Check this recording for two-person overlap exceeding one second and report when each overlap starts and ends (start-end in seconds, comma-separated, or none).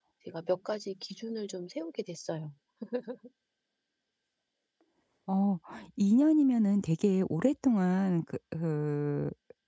none